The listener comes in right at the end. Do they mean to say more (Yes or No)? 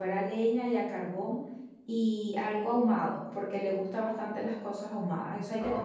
Yes